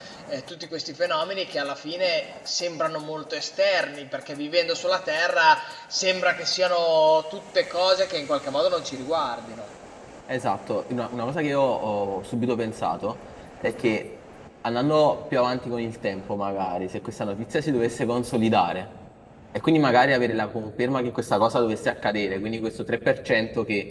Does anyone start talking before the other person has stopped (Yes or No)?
No